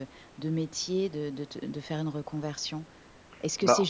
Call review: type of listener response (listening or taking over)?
listening